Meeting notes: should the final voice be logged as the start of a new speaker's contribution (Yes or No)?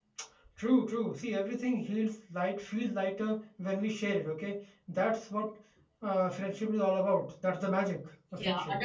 Yes